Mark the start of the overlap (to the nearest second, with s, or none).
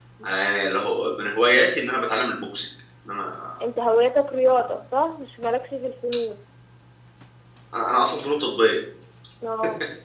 none